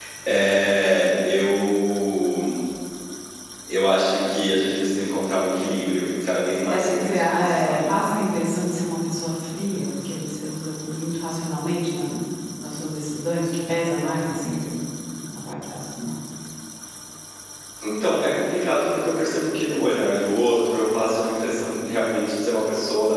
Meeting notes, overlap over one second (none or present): present